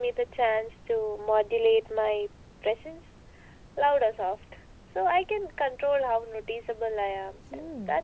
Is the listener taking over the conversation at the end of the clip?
Yes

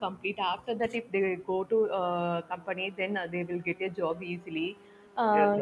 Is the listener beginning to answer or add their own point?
Yes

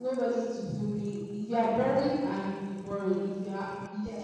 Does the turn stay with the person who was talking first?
Yes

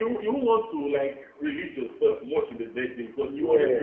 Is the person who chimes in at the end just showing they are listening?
Yes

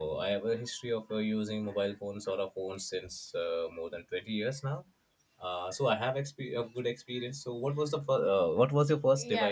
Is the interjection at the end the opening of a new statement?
Yes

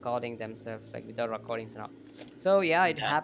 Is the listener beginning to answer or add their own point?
No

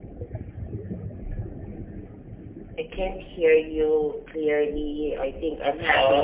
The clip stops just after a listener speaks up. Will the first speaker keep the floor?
No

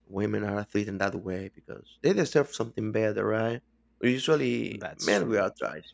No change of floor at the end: Yes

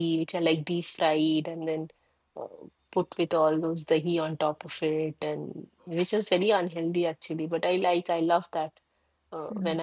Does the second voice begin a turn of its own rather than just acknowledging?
No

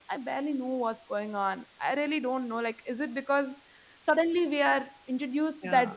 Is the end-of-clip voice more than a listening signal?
No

